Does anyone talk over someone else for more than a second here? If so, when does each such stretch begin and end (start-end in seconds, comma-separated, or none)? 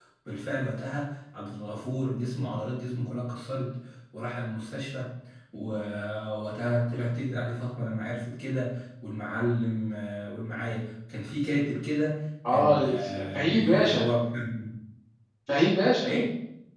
12.5-14.1